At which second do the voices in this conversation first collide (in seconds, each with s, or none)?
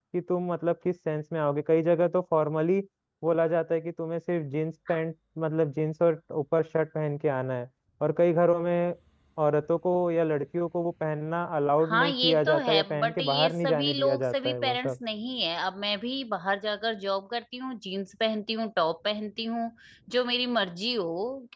11.8 s